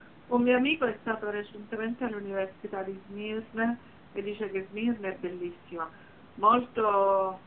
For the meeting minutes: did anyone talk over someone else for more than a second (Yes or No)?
No